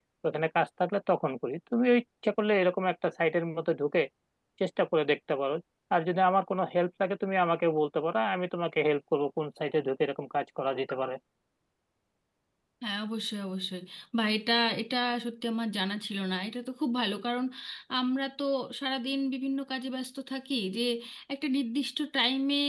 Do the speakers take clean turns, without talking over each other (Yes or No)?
Yes